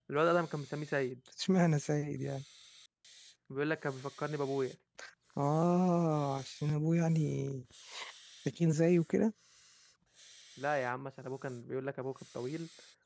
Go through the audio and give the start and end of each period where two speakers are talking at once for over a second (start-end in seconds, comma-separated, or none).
none